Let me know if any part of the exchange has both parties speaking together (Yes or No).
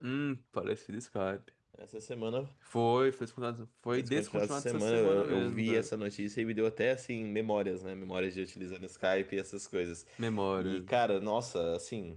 Yes